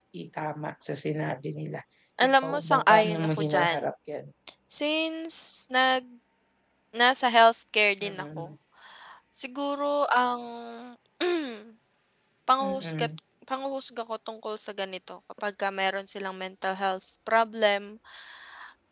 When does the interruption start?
2.3 s

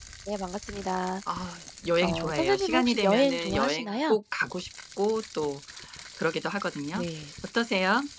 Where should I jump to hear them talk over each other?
2.0 s

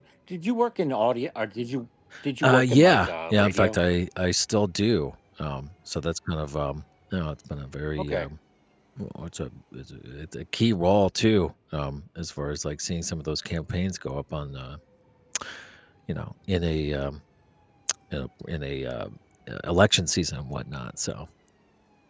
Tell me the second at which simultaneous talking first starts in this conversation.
2.4 s

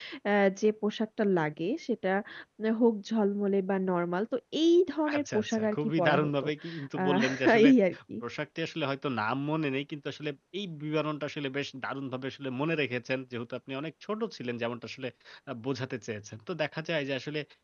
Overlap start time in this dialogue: 5.1 s

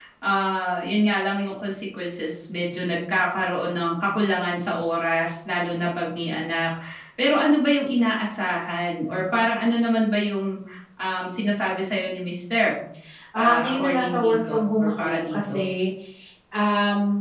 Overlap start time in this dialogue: 13.4 s

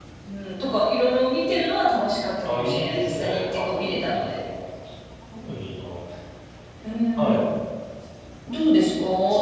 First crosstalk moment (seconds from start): 2.5 s

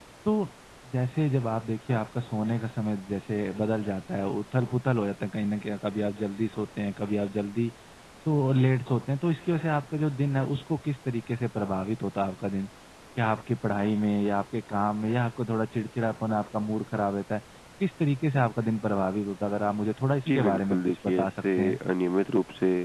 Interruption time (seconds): 20.3 s

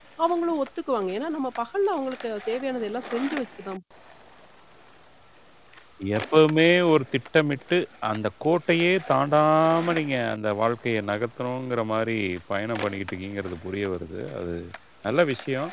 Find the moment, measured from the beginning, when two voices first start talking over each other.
none

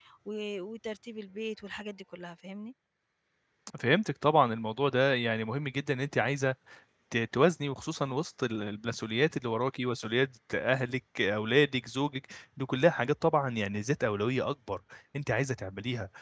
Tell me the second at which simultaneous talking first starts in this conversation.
none

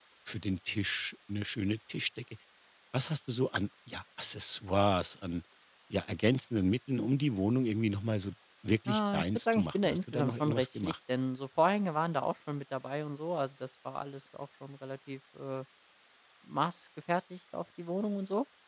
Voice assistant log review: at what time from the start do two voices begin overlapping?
8.9 s

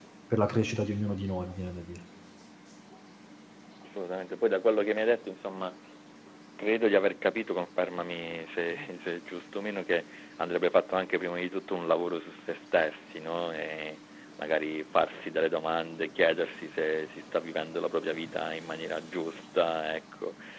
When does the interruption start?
none

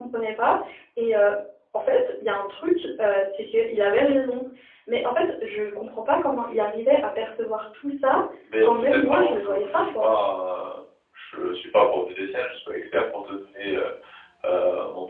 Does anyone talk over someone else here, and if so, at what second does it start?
8.6 s

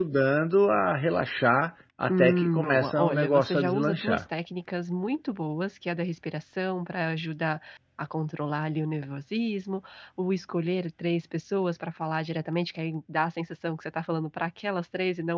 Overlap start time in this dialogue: 2.1 s

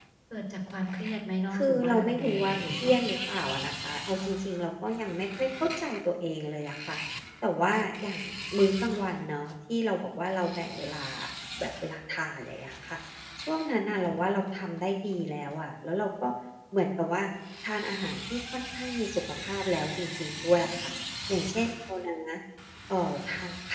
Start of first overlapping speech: 1.5 s

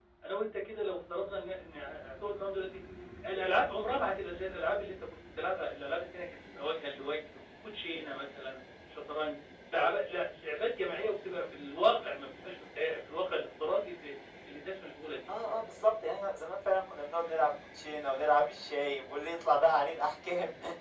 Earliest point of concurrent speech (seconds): none

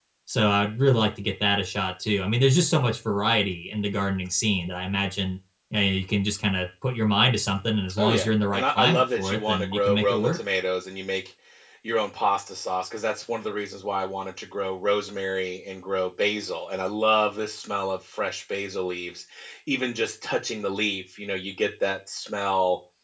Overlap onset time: 8.0 s

